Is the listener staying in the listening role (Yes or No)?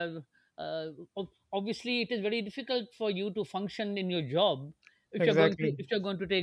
Yes